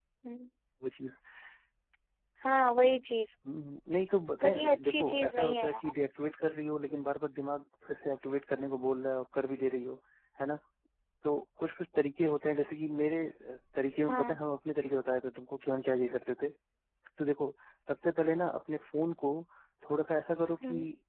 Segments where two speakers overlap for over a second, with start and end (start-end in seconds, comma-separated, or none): 4.4-5.9